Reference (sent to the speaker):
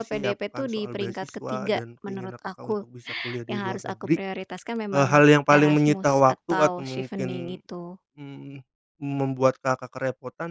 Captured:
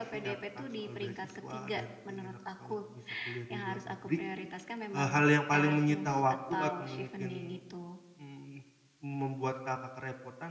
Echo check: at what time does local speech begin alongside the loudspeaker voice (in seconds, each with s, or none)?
none